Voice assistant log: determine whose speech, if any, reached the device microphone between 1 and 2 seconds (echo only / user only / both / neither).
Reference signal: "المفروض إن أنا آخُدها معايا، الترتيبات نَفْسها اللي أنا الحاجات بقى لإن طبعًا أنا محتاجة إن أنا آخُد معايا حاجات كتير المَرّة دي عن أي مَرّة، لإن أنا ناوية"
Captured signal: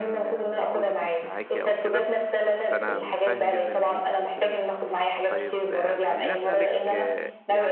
both